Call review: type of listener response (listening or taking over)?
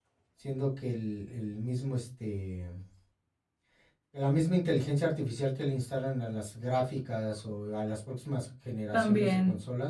listening